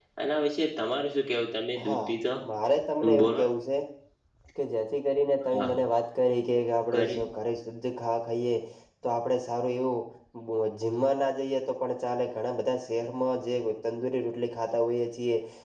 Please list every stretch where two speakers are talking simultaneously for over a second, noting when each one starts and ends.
none

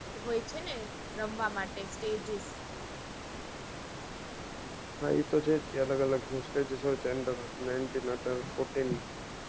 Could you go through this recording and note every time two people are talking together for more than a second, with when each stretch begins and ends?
none

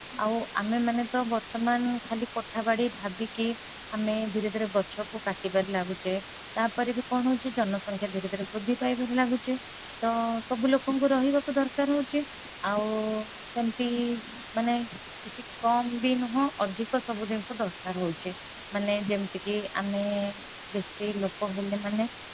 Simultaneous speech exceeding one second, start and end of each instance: none

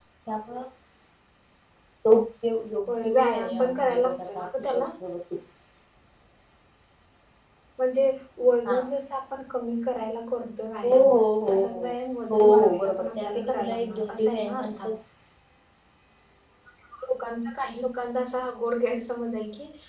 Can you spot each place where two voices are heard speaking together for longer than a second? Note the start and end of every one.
2.9-4.8, 12.3-14.8

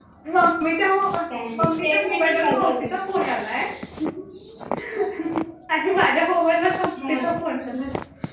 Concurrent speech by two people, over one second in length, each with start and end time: 1.6-2.9

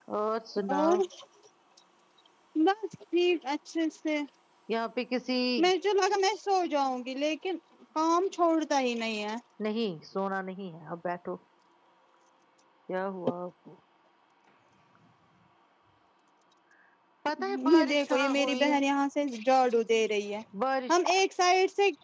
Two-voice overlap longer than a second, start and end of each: 17.4-18.8

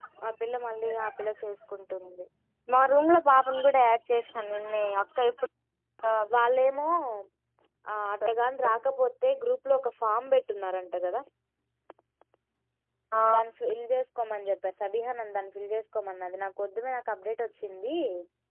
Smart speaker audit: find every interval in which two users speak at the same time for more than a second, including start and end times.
none

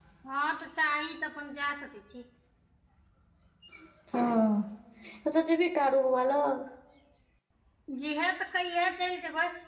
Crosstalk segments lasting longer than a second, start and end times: none

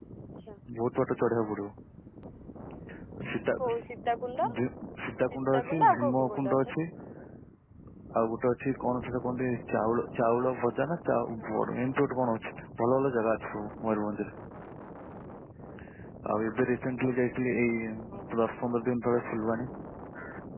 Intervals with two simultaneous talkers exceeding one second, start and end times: 5.3-6.7

